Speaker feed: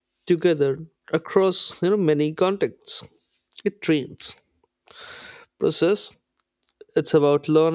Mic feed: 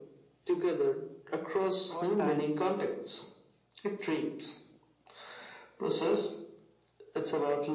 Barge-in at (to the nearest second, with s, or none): 2 s